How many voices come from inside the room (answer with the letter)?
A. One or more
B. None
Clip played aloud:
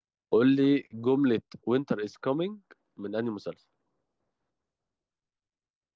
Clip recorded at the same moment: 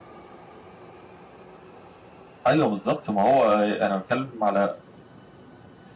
A